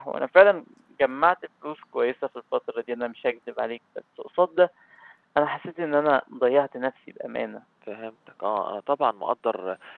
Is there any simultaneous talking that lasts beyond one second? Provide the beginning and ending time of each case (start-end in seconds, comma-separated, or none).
none